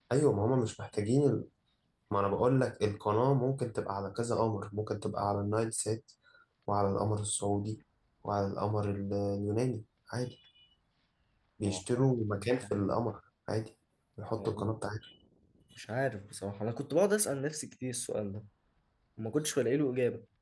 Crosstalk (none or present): present